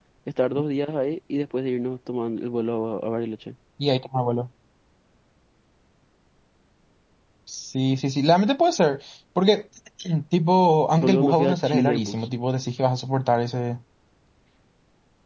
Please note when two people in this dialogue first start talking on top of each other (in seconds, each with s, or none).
10.9 s